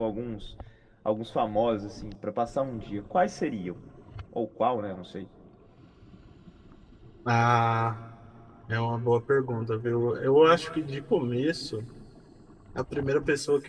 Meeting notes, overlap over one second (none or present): none